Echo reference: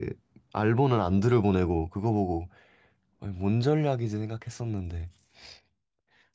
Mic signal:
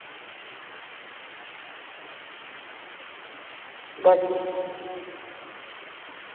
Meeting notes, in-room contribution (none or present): present